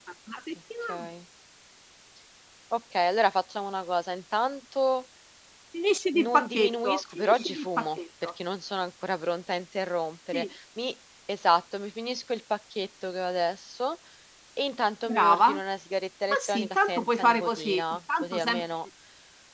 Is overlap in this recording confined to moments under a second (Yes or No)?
No